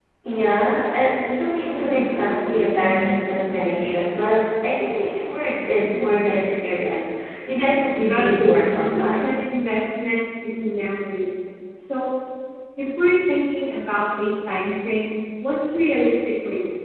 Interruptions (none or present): present